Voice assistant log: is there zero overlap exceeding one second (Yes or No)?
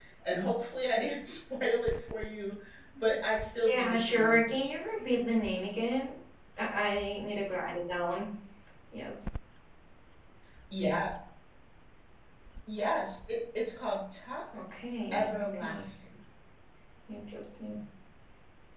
No